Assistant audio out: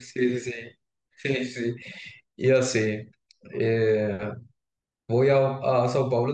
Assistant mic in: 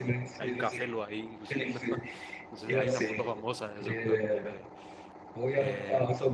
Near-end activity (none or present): present